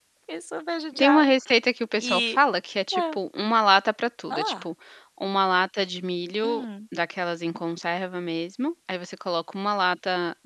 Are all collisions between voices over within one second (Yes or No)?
Yes